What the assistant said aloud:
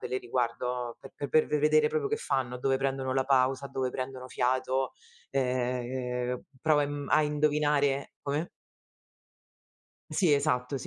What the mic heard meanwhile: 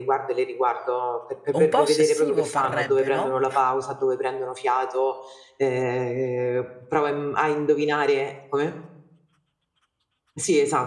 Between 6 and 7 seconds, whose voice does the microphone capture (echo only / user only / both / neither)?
echo only